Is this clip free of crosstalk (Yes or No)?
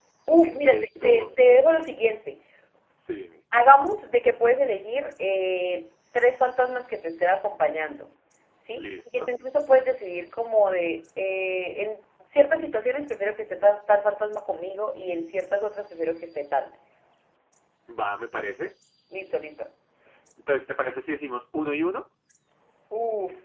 No